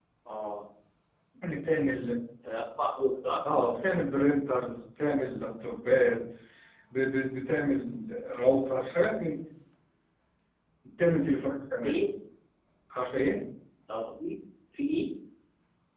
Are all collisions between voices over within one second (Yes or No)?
Yes